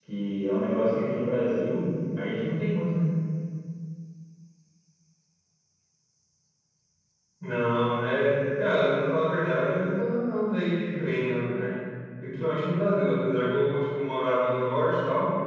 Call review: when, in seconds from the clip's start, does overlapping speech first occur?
none

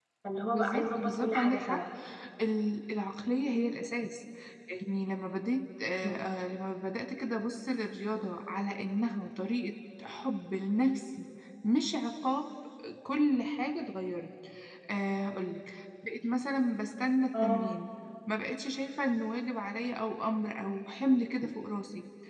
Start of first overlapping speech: 0.5 s

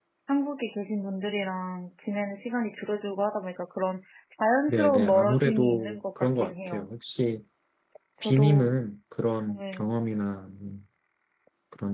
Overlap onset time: 4.7 s

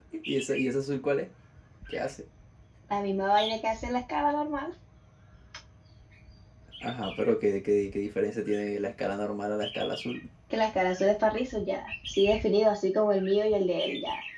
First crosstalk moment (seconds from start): none

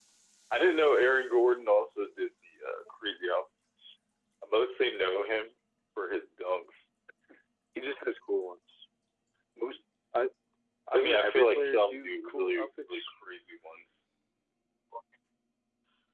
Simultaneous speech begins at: 10.9 s

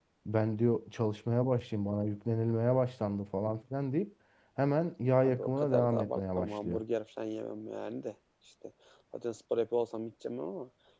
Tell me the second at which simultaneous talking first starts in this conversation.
5.2 s

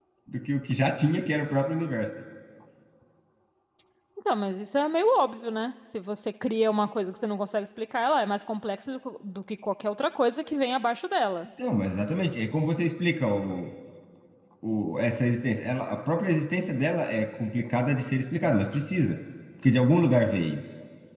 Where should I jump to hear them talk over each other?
none

